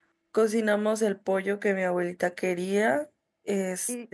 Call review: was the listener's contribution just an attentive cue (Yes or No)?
No